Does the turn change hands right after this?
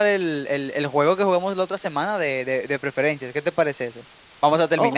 Yes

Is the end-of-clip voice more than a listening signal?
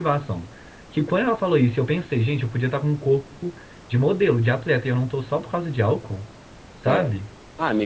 Yes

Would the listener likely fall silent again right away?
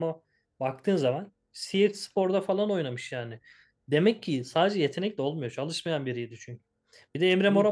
Yes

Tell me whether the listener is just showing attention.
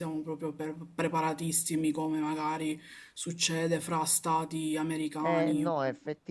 No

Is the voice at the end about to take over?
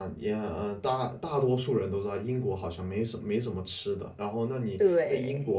No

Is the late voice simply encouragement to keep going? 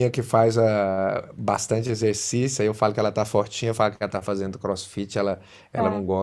Yes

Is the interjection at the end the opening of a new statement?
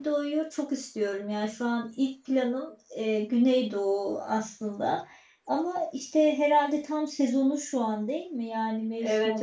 Yes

